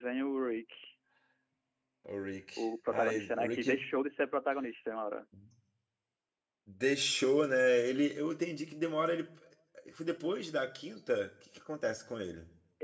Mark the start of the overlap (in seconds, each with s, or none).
2.6 s